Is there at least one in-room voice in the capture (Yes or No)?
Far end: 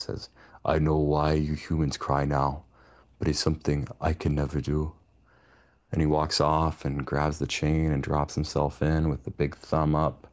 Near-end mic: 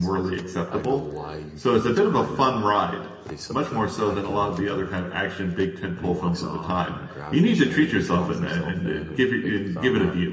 Yes